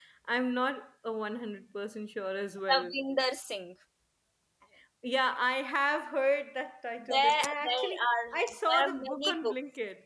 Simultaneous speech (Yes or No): Yes